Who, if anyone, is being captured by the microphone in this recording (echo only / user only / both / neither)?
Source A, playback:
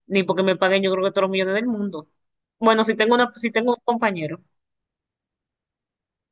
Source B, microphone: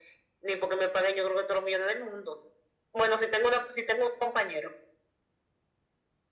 echo only